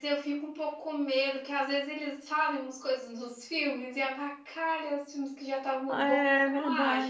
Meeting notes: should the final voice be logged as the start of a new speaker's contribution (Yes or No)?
Yes